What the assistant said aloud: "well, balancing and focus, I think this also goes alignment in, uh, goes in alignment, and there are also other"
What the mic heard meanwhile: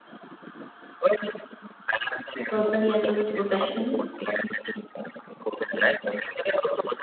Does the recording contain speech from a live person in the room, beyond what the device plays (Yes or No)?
Yes